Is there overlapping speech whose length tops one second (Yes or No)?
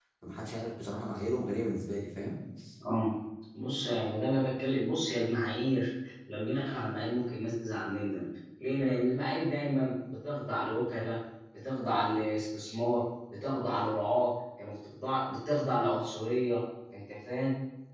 No